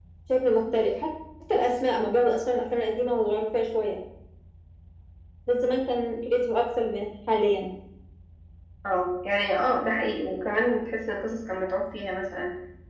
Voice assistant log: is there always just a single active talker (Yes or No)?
Yes